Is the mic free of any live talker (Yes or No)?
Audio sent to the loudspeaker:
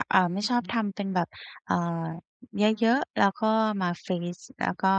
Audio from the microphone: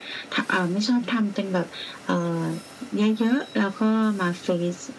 Yes